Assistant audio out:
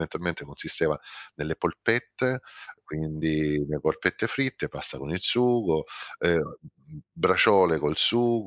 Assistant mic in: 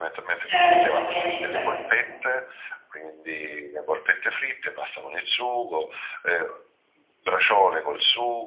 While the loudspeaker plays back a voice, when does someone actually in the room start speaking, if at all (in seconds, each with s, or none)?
0.3 s